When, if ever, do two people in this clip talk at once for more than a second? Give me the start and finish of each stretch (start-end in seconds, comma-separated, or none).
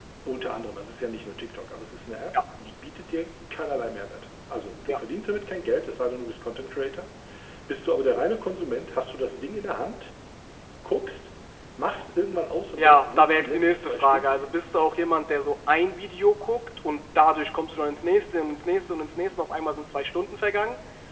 12.8-14.6